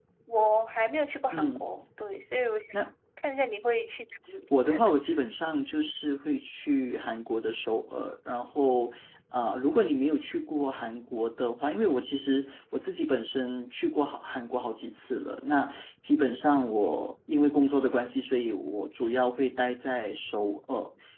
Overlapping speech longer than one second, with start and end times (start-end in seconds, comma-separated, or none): none